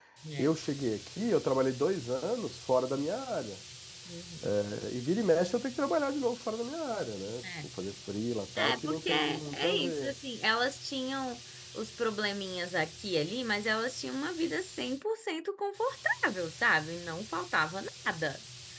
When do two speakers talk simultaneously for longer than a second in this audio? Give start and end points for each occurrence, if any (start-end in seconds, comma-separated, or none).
8.6-10.1